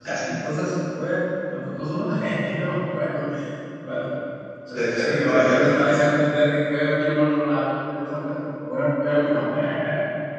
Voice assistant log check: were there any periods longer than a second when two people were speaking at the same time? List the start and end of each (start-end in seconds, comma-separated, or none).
4.8-6.0